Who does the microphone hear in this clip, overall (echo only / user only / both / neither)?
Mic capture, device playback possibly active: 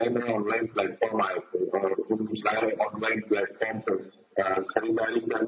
echo only